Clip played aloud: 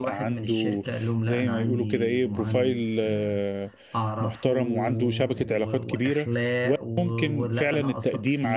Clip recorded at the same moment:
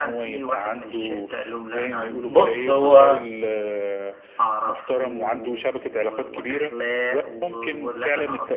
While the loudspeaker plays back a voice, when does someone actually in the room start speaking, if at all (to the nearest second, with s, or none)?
2 s